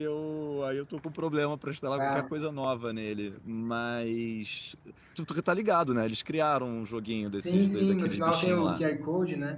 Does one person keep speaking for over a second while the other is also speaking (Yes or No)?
Yes